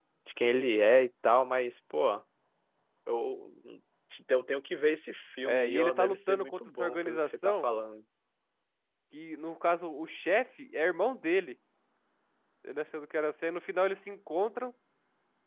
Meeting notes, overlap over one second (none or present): present